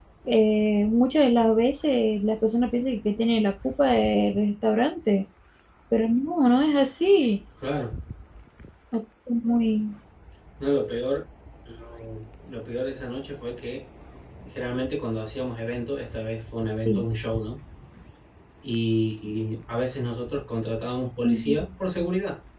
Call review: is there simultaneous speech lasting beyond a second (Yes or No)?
No